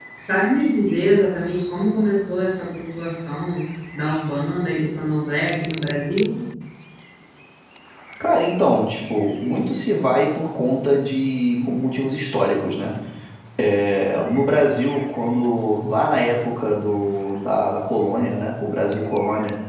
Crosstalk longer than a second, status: none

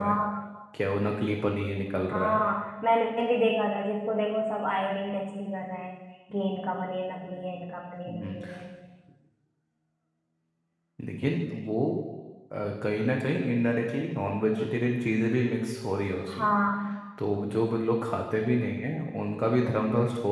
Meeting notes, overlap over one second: none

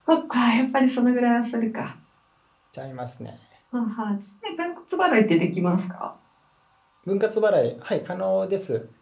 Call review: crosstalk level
none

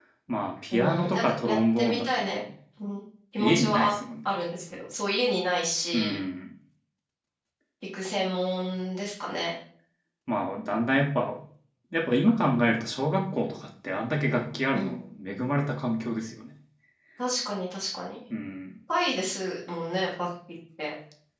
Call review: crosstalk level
present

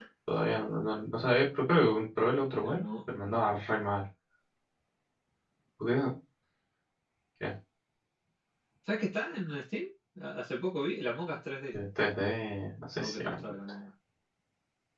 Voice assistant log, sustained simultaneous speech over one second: none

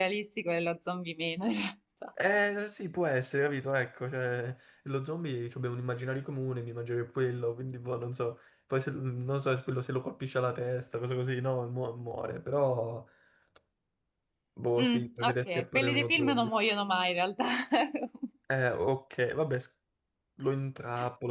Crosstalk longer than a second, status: present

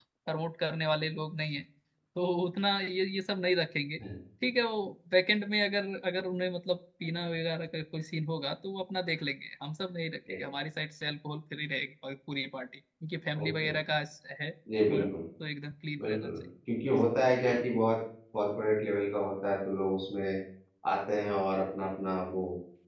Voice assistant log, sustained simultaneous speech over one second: none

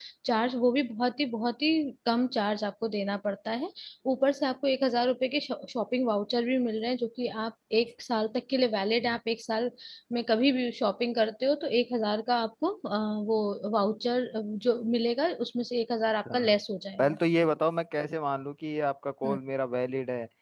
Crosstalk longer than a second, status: none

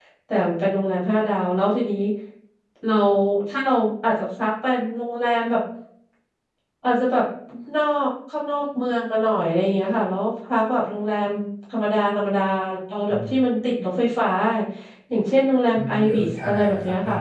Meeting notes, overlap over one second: present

